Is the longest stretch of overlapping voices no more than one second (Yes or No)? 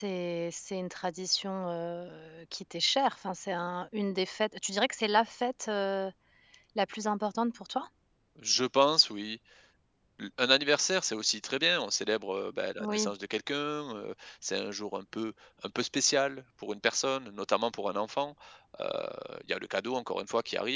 Yes